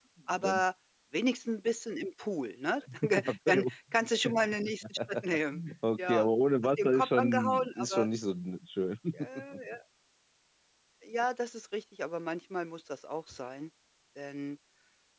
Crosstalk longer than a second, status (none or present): present